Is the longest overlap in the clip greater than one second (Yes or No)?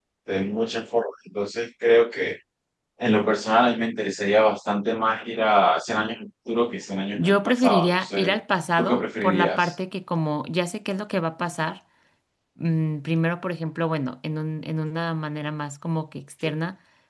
Yes